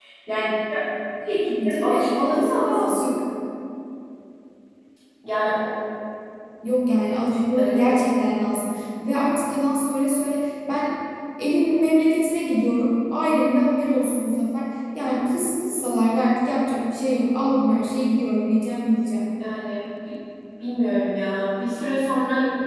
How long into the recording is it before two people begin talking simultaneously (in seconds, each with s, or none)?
1.6 s